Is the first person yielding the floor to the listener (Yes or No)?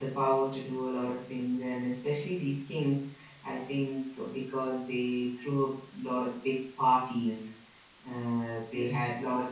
No